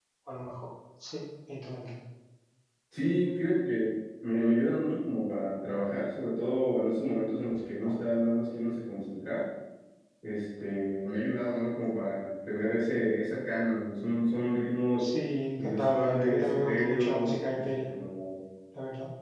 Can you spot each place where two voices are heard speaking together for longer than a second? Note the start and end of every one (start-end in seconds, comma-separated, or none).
15.6-17.6